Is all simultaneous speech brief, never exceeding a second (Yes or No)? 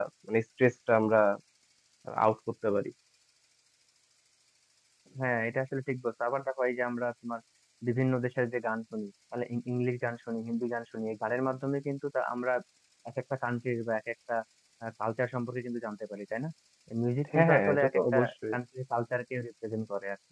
No